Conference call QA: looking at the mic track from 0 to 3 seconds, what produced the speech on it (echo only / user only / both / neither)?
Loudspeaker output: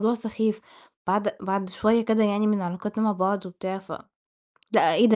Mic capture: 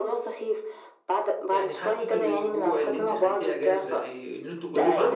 both